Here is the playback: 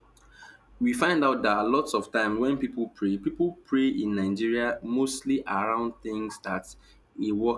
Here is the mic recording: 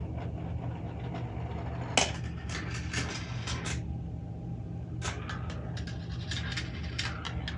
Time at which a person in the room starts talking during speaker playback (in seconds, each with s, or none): none